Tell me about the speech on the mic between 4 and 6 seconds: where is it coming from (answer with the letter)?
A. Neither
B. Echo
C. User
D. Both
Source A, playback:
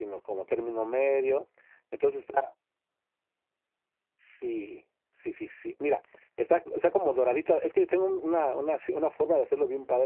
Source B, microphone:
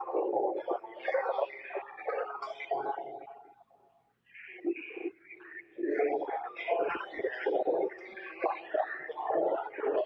B